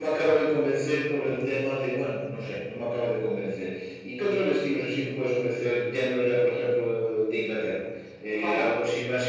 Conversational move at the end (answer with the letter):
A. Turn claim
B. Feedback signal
B